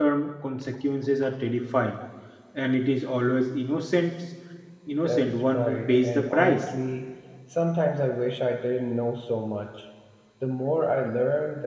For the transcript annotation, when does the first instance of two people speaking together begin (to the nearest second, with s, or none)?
5 s